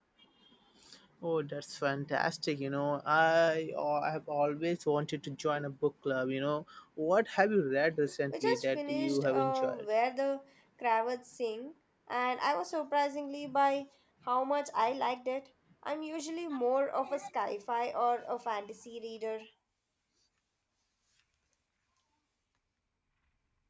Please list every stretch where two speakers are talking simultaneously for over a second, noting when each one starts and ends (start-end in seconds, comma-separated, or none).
8.3-9.8